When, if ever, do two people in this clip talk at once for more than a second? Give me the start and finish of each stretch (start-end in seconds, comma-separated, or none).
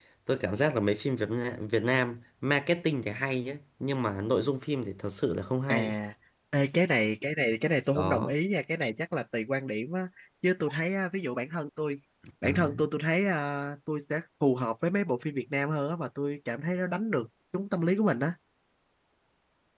none